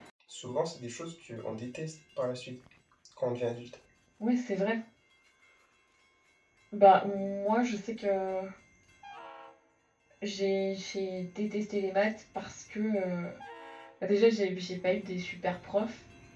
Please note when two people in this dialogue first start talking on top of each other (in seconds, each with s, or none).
none